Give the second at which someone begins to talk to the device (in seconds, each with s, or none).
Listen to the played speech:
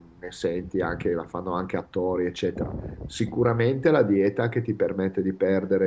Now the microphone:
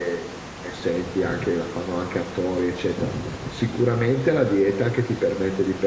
none